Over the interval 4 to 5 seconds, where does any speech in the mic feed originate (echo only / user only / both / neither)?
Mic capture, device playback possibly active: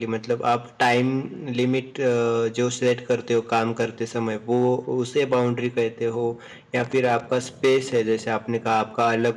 user only